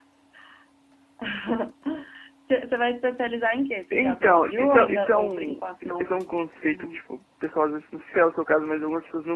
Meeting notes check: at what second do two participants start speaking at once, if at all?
3.9 s

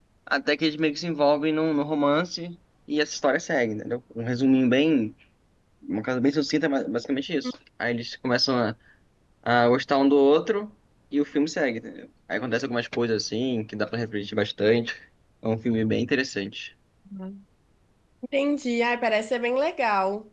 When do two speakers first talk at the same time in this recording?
none

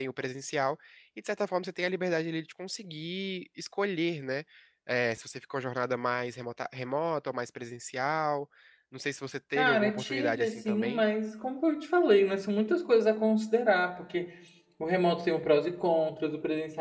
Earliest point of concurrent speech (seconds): 9.6 s

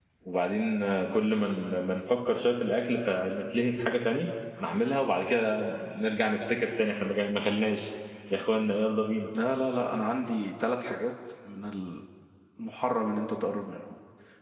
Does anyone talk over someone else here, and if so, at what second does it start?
none

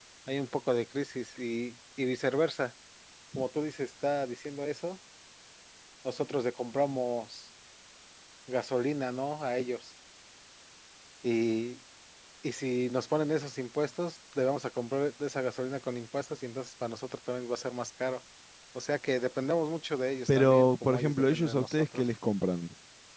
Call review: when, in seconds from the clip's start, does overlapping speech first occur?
20.3 s

